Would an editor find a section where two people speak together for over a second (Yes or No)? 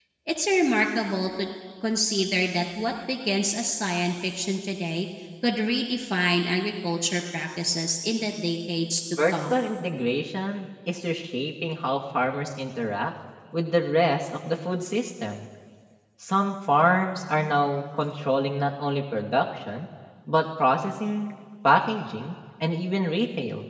No